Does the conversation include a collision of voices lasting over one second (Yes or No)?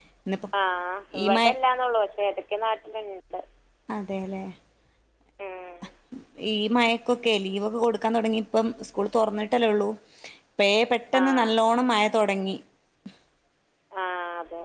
No